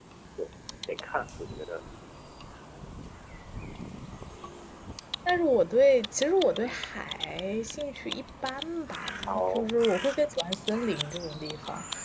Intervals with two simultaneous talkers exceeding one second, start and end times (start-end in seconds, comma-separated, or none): none